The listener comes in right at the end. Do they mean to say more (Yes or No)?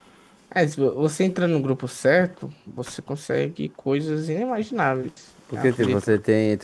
Yes